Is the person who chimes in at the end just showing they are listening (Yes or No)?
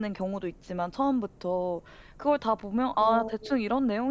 Yes